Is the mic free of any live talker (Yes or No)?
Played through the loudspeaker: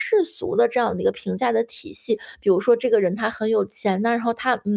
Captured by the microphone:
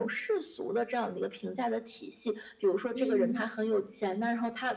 No